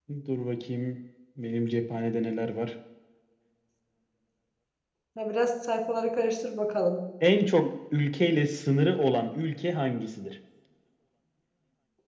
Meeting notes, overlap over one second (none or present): none